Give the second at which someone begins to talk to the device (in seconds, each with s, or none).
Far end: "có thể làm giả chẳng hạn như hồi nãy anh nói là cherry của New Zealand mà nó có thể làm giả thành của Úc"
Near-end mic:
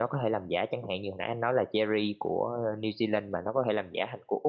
none